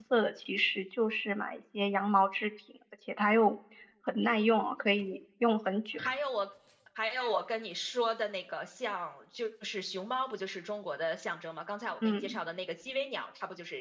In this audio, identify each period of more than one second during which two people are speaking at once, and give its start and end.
none

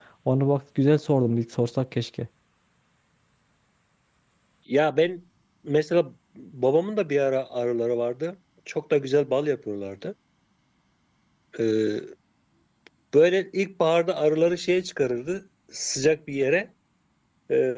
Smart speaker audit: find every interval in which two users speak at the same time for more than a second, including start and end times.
none

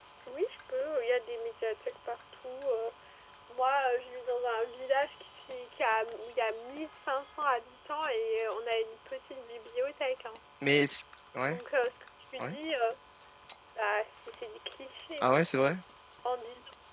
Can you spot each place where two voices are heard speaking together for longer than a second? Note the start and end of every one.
none

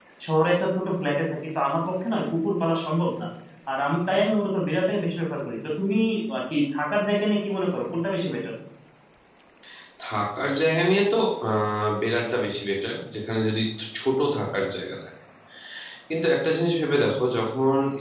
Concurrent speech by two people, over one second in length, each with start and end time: none

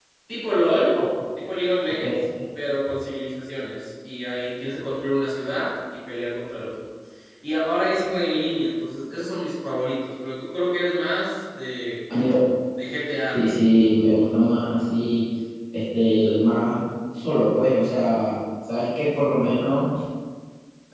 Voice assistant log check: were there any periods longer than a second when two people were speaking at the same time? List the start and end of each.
none

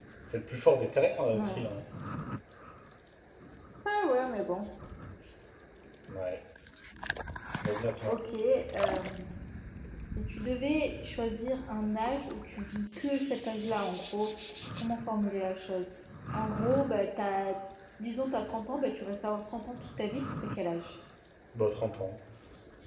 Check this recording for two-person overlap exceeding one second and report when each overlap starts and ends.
none

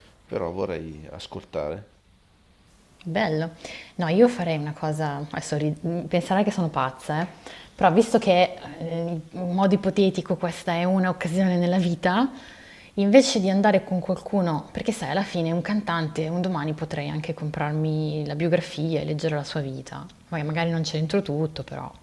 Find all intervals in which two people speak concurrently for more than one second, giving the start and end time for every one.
none

